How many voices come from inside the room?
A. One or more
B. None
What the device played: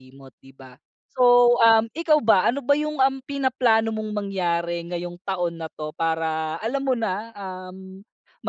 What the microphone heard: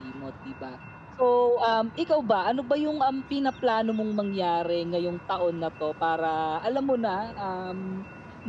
B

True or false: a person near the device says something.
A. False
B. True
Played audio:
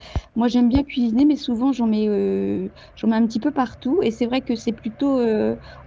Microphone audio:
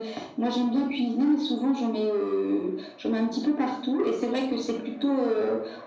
A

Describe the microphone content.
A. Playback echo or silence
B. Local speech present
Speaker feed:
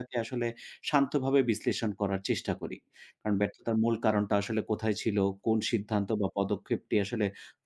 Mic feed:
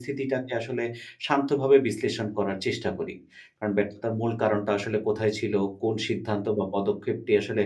A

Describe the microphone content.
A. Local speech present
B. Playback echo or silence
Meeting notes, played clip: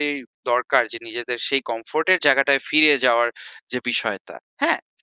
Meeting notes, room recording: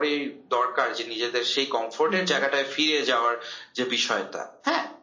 A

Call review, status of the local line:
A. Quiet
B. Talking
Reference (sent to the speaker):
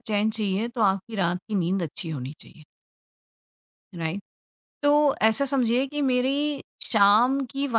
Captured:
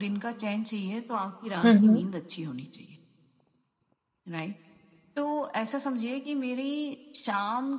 B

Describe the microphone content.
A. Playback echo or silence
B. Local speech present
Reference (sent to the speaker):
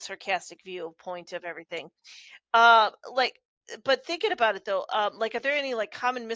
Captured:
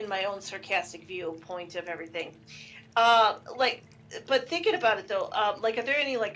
A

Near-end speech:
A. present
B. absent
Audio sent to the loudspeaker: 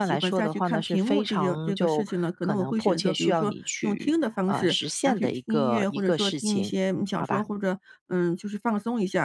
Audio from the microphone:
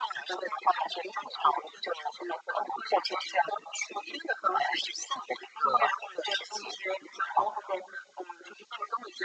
B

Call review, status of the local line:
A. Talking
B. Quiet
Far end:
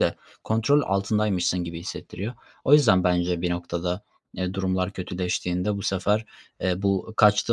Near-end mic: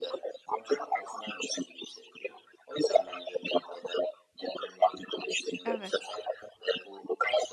A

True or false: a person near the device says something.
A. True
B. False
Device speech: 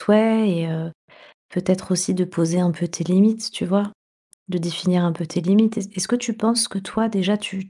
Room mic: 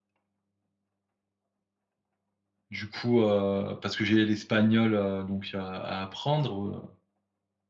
A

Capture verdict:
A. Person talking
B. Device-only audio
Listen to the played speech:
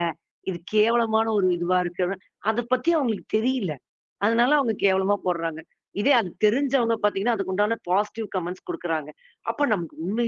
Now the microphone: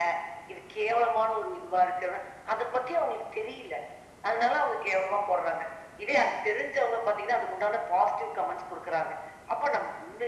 B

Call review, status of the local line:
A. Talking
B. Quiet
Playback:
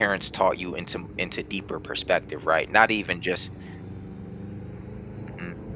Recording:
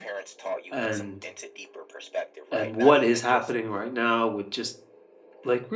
A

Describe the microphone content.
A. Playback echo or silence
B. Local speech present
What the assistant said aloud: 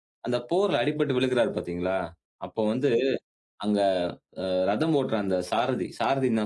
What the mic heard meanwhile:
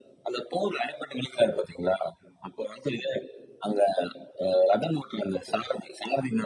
A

